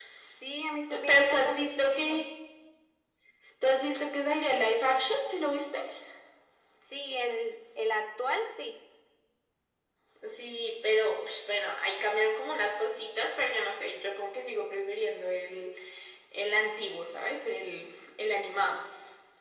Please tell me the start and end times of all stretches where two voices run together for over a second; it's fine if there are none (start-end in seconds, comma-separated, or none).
0.9-2.3